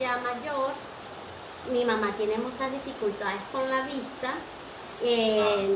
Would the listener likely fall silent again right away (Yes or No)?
Yes